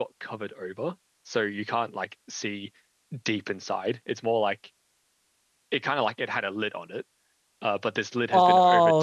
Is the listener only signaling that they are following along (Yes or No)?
No